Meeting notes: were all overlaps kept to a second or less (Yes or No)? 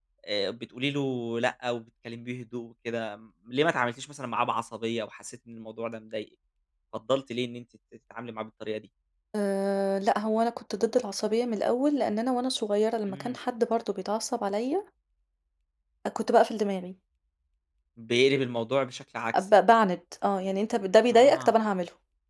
Yes